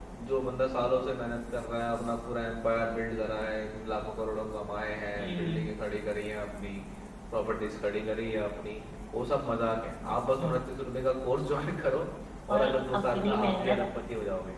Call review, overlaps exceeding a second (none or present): present